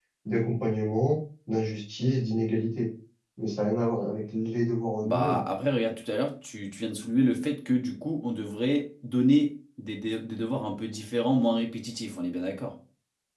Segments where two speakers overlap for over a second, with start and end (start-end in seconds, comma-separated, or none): none